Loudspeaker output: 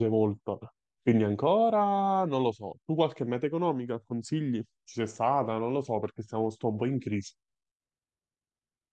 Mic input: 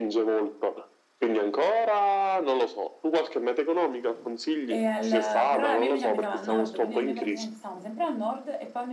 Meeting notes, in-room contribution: present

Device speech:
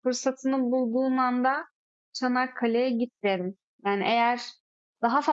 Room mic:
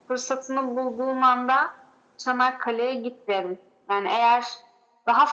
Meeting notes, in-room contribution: none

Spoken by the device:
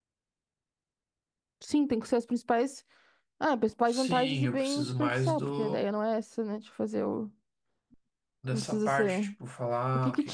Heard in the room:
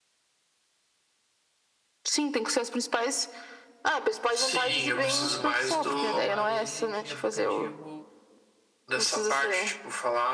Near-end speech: present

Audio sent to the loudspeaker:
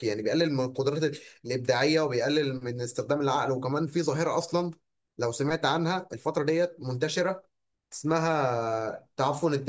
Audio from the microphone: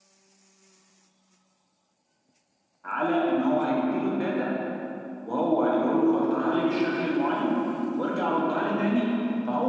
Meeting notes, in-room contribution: present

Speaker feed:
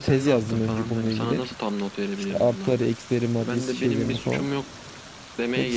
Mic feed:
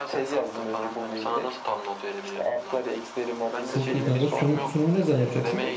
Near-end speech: present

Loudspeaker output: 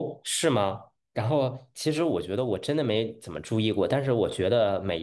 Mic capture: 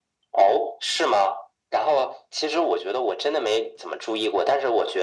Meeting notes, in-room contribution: none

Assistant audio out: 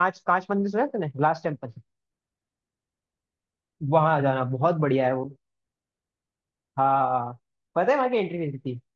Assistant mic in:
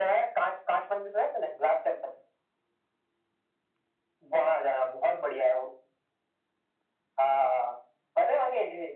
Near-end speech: none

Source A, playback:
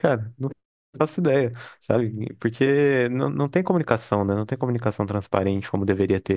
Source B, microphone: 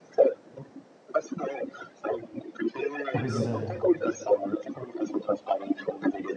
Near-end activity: present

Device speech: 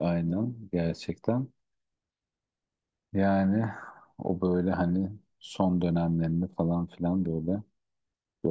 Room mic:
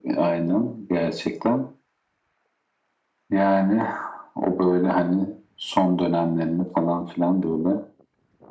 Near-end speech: none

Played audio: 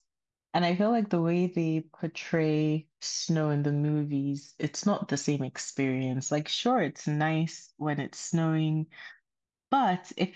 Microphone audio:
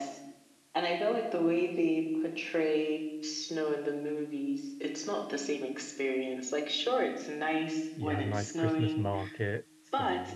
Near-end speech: present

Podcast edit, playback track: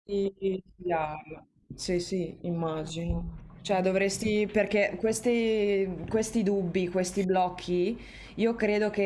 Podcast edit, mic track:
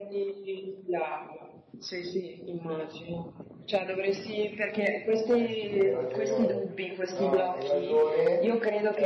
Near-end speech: present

